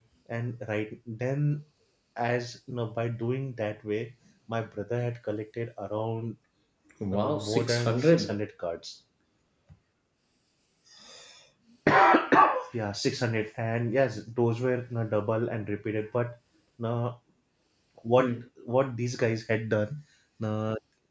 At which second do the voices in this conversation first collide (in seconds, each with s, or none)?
7.1 s